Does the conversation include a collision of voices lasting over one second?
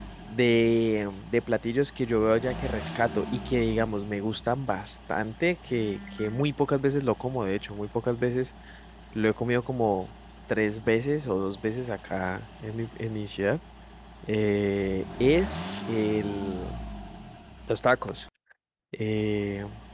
No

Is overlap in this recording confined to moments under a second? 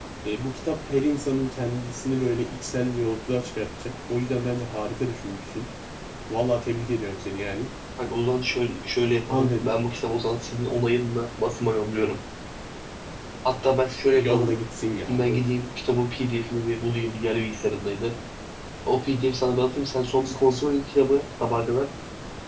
Yes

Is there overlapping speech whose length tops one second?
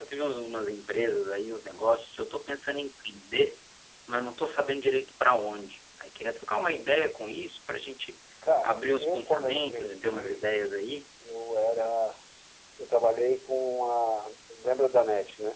Yes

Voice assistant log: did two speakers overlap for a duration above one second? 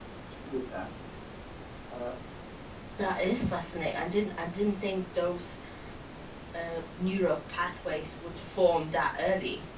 No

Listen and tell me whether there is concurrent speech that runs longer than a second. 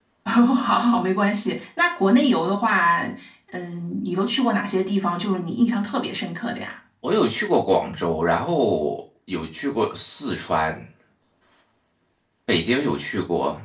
No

